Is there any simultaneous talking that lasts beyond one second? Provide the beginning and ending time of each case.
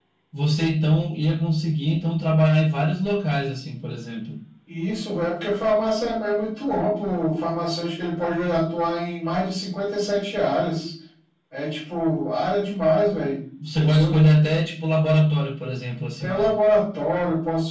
none

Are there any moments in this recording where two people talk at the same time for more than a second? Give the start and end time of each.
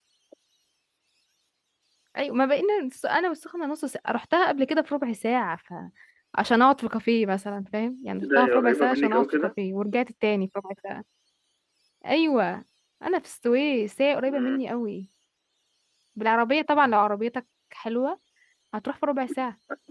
8.2-9.5

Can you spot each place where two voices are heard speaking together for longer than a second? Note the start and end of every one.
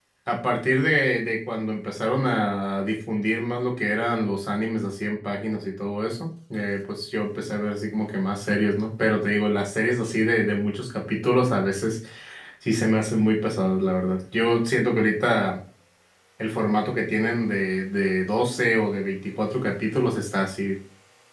none

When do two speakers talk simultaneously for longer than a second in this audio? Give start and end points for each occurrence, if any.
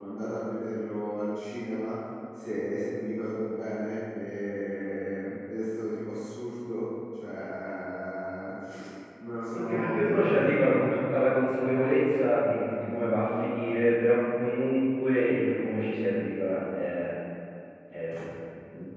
9.5-11.0

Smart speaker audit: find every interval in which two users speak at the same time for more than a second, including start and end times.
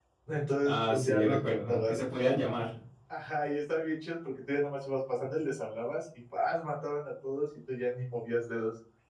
0.7-1.9

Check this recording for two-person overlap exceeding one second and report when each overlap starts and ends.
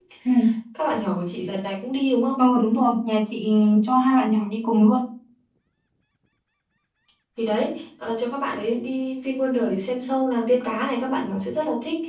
none

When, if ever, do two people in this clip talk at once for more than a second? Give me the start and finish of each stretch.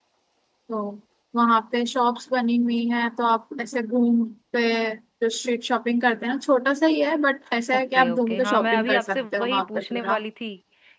7.7-10.2

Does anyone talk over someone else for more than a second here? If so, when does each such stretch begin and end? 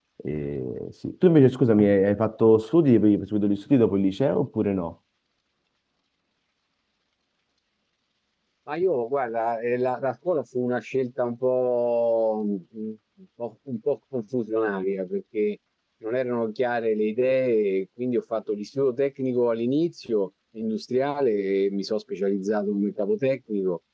none

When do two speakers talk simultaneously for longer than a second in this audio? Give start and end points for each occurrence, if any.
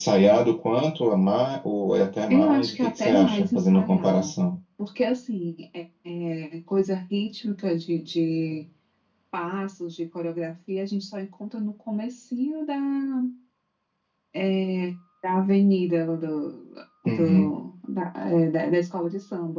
2.3-4.3

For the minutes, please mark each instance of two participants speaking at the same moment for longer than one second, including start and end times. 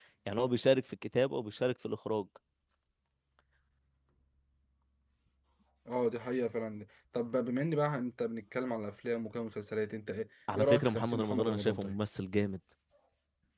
10.6-12.0

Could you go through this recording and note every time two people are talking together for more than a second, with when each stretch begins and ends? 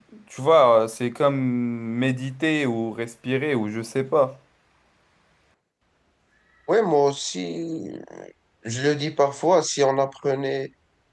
none

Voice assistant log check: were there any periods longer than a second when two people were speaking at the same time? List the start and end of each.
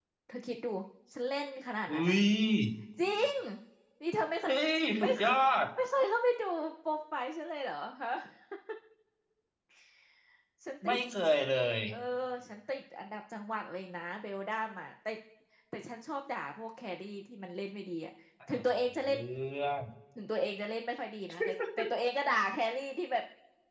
none

